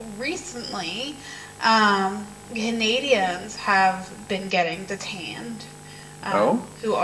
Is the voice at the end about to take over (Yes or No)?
No